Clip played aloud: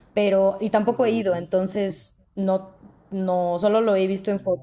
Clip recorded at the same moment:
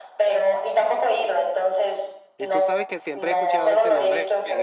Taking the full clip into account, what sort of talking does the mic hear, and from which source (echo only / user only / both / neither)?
both